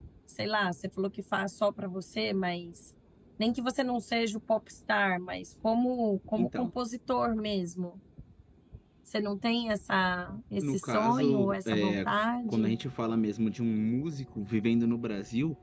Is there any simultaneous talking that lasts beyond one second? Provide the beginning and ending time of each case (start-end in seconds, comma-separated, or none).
10.6-12.1